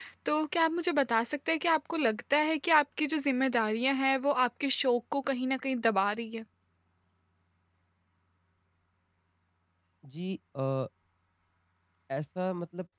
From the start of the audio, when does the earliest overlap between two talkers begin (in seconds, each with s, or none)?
none